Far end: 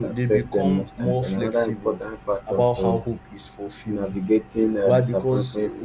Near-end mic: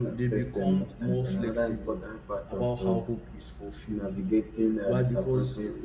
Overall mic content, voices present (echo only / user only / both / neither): echo only